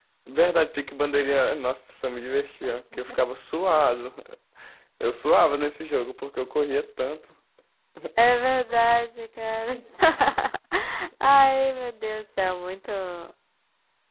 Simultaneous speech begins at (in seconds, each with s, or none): none